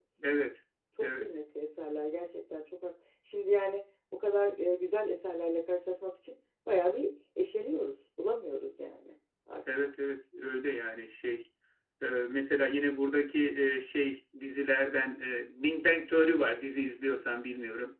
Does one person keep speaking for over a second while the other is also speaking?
No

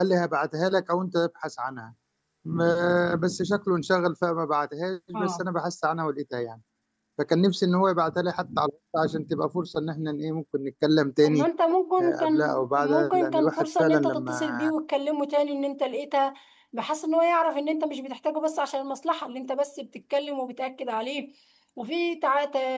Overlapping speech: Yes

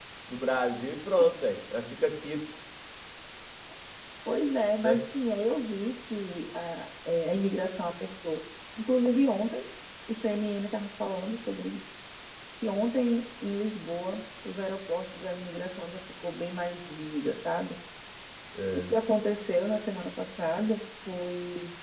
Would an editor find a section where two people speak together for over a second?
No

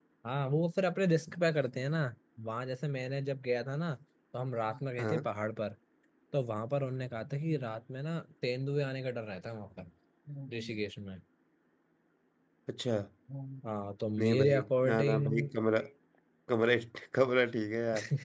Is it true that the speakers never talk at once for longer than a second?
No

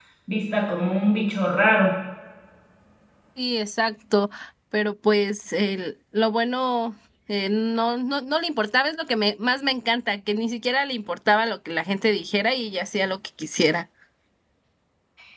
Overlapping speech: No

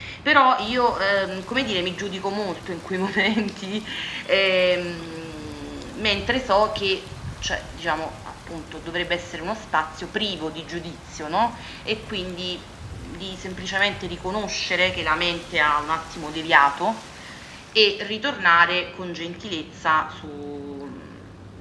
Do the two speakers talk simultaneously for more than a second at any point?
No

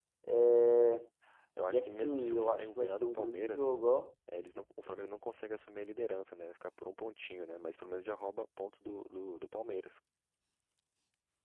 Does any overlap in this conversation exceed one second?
Yes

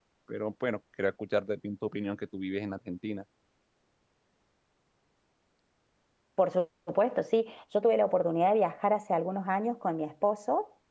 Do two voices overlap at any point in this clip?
No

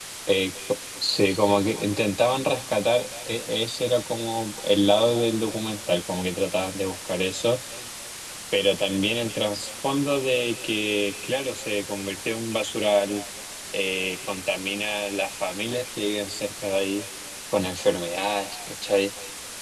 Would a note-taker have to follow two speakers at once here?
No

